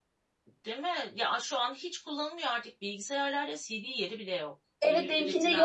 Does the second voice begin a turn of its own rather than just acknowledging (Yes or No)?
Yes